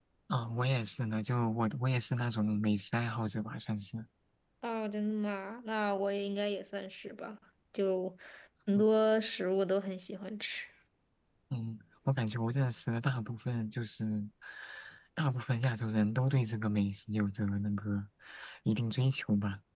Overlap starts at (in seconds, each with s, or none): none